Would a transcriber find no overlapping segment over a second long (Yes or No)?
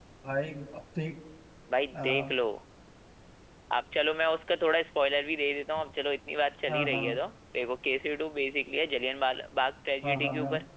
Yes